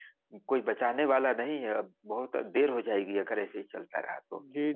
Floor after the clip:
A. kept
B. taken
B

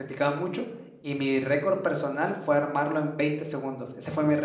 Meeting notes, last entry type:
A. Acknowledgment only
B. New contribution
A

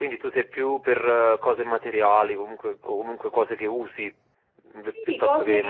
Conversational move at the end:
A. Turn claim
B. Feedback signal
A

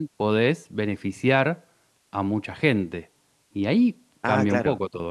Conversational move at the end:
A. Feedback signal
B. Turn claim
B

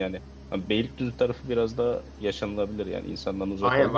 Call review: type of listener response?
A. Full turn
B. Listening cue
A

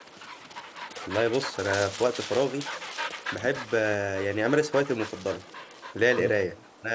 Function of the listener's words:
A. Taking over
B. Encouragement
B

